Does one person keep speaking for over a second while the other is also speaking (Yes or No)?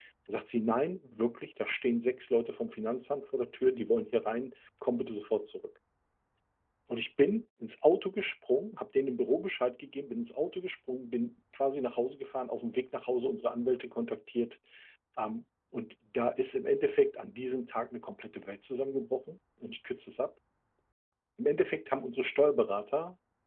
No